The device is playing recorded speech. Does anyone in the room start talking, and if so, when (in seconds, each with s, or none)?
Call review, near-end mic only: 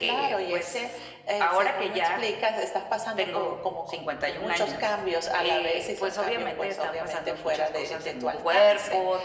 none